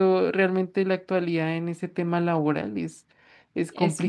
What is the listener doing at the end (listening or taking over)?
taking over